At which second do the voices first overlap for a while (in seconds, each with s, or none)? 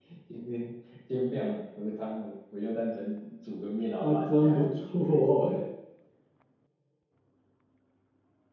4.0 s